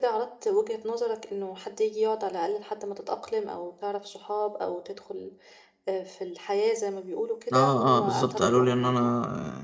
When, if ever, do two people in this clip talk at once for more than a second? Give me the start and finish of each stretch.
7.5-9.0

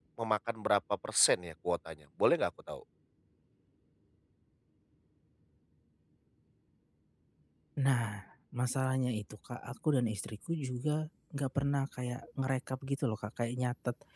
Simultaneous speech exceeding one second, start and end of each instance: none

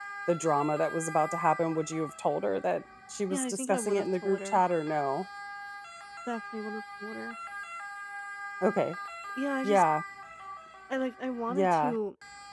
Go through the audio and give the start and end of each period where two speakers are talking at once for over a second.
3.3-4.6

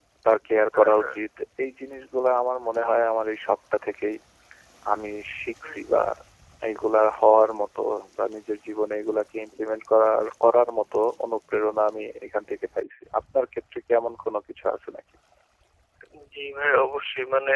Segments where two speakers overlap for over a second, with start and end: none

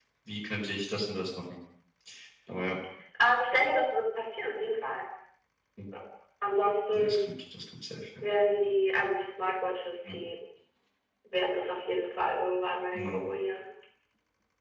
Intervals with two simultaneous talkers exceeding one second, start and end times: none

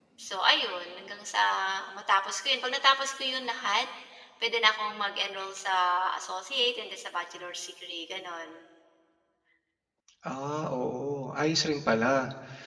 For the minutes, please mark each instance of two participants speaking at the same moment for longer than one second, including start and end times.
none

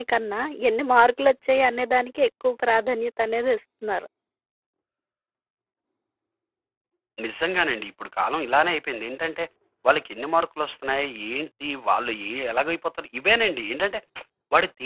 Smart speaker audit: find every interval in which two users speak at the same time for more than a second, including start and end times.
none

